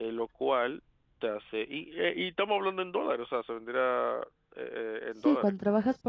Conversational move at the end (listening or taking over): taking over